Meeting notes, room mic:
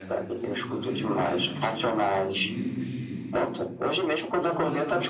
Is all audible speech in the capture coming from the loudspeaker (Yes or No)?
No